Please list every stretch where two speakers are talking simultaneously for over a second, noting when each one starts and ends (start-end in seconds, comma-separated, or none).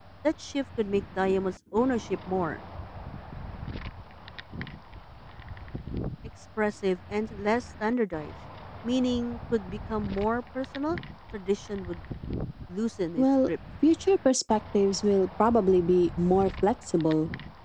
none